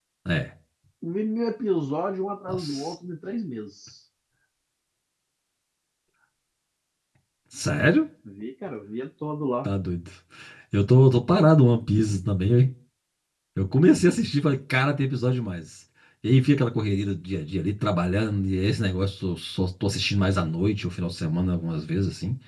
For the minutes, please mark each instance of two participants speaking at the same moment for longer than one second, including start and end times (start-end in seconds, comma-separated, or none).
none